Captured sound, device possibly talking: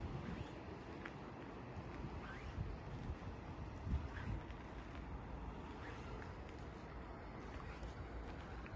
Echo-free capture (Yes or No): Yes